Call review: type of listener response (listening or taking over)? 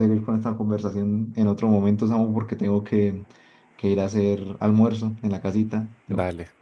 taking over